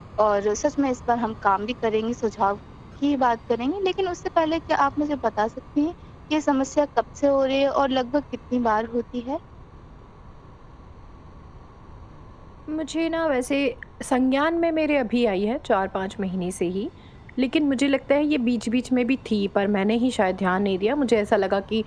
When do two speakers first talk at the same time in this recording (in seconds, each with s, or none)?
none